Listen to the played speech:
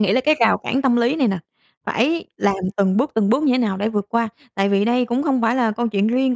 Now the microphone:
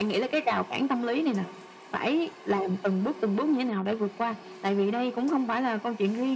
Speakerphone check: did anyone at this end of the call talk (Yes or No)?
No